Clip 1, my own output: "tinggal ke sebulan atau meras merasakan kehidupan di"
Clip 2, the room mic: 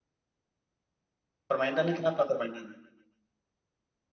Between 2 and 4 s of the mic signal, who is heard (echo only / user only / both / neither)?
user only